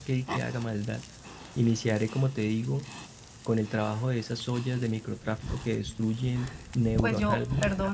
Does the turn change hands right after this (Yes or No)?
Yes